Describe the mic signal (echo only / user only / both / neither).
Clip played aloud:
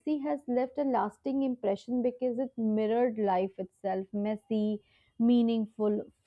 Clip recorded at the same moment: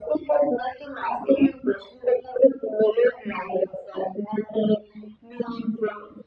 both